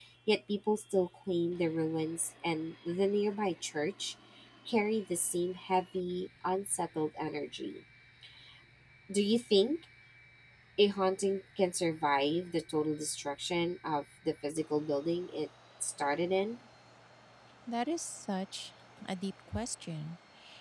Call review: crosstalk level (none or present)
none